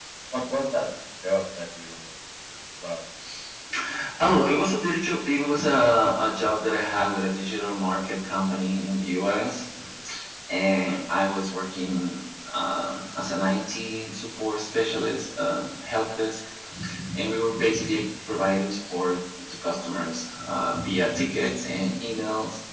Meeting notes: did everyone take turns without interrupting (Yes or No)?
Yes